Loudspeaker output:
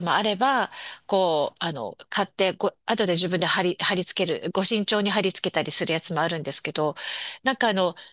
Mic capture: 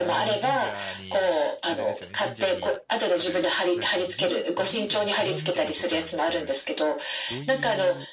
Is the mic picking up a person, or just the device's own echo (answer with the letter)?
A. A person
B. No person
A